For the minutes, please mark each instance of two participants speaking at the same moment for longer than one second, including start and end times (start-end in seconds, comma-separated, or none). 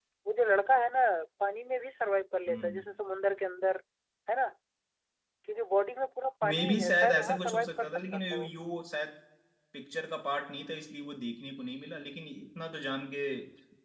6.4-8.5